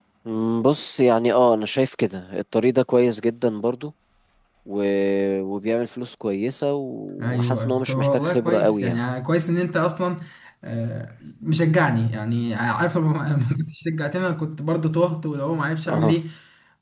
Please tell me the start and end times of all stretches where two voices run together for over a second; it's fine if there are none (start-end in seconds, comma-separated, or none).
7.2-9.0